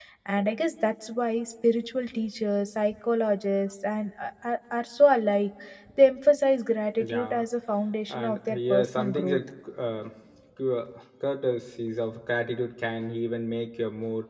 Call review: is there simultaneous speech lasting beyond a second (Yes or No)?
Yes